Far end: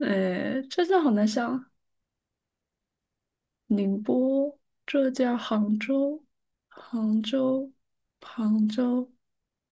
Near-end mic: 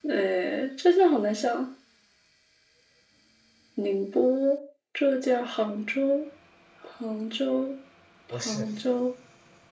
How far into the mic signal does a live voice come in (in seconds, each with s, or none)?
8.3 s